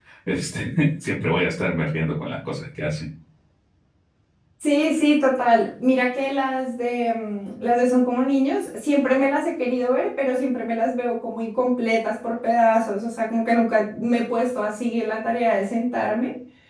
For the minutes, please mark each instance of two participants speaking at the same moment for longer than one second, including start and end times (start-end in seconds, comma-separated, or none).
none